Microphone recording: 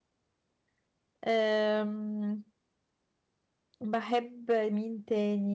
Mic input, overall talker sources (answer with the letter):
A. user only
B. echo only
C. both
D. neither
A